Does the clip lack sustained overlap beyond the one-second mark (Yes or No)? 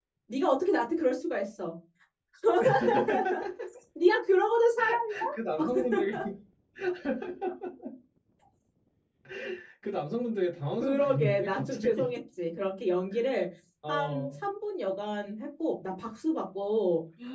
No